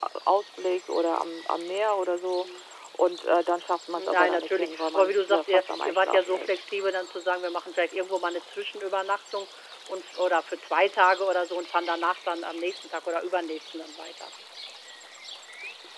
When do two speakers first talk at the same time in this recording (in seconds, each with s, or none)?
4.0 s